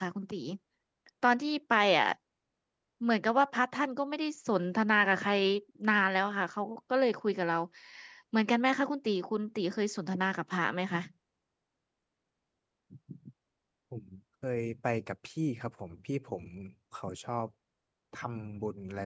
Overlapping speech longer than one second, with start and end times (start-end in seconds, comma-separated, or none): none